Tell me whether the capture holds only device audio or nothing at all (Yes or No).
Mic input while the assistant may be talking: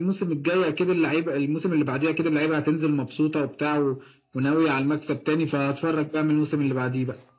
Yes